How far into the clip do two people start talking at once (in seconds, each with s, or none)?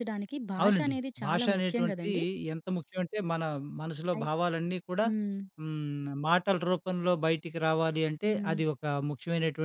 0.6 s